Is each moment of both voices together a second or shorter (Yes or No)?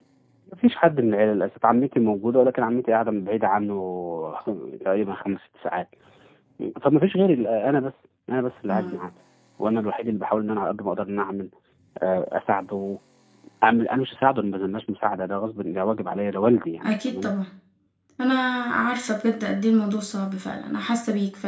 Yes